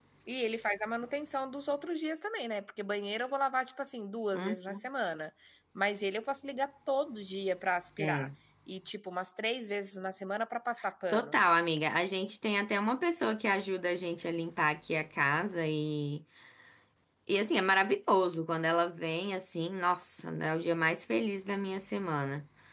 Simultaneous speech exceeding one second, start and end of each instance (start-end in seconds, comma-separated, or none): none